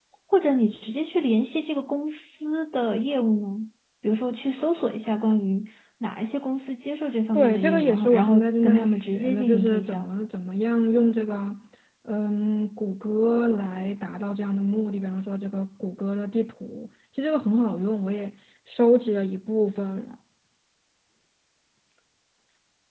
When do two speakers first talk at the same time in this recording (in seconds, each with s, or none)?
7.3 s